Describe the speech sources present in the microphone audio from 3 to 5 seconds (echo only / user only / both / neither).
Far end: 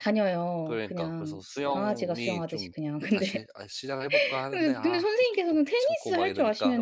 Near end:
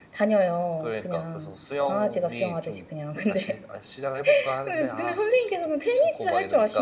echo only